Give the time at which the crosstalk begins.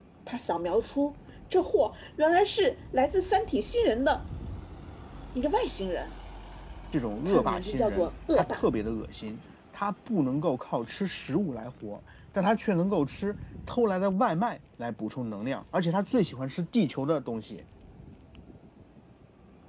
7 s

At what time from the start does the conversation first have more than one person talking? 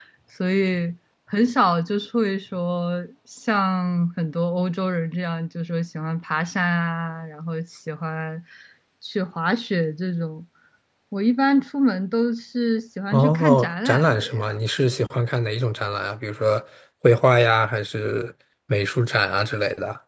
13 s

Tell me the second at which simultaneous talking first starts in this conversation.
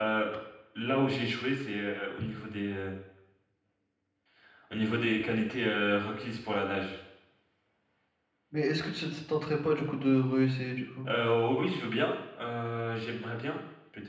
none

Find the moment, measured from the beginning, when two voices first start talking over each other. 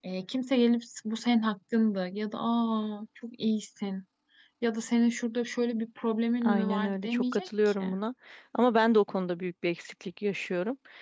6 s

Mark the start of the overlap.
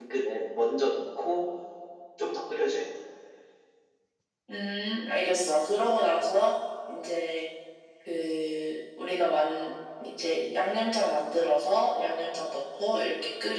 none

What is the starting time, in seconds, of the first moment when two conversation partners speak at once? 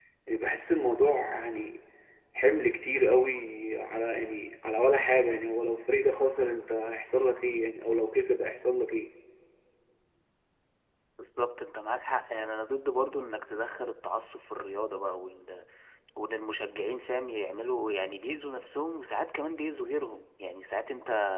none

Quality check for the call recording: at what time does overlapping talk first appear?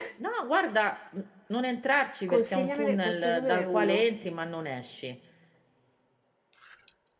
2 s

